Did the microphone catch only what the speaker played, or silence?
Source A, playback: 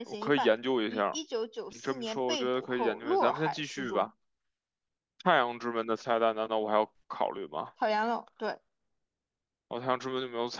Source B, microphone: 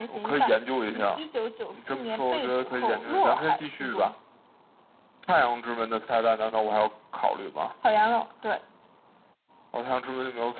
Yes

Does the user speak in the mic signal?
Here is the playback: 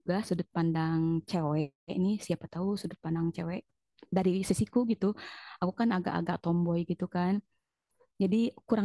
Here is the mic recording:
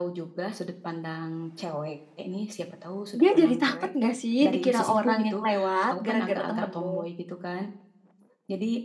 Yes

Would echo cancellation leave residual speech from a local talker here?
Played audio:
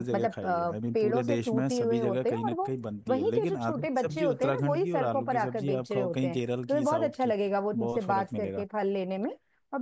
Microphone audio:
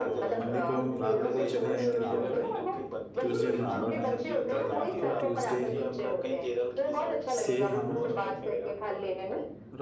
Yes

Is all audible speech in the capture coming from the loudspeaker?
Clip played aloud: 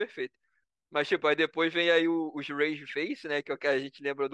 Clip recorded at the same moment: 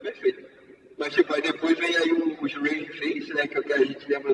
Yes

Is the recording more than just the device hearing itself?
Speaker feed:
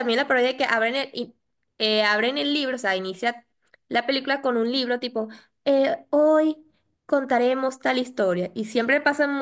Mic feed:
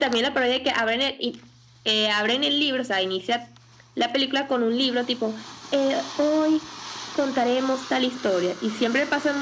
No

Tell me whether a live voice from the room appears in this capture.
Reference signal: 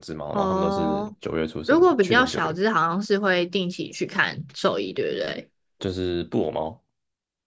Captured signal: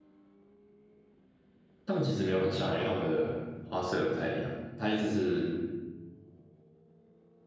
Yes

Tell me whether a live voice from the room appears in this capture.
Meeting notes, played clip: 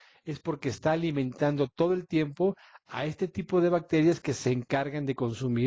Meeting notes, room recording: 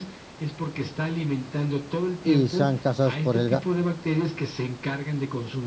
Yes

